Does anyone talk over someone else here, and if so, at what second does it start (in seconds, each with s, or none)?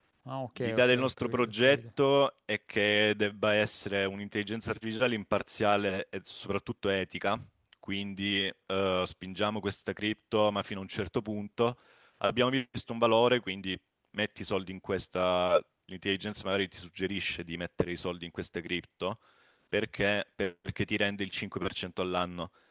0.6 s